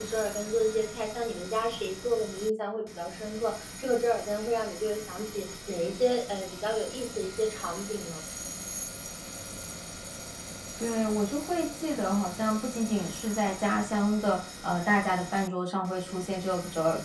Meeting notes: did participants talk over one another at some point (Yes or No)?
No